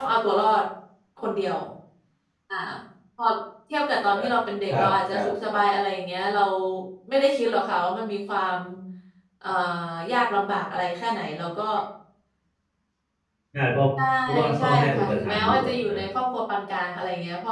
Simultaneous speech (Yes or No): Yes